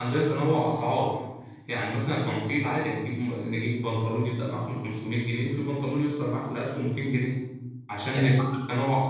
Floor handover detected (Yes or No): No